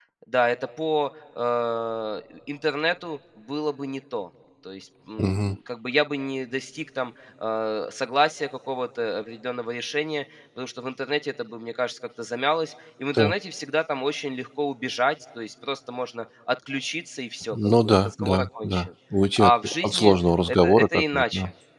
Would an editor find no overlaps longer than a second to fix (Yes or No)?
No